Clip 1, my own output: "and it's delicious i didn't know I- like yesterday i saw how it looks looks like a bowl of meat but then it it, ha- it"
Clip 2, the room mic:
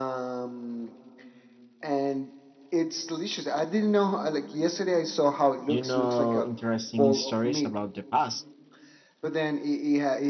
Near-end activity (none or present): present